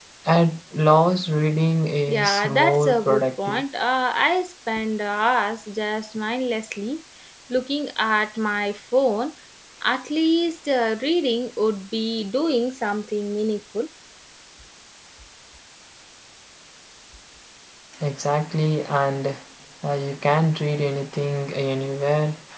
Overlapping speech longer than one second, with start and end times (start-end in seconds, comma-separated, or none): 2.1-3.6